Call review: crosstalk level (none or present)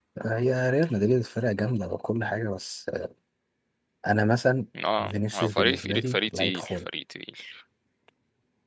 present